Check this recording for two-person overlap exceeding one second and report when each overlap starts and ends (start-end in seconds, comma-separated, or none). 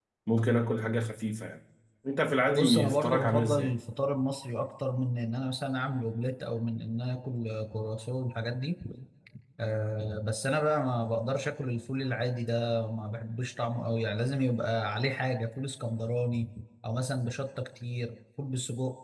2.5-3.8